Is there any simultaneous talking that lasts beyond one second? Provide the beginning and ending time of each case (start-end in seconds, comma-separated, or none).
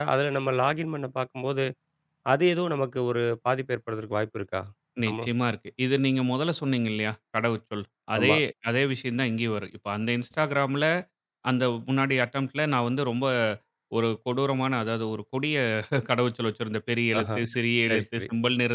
none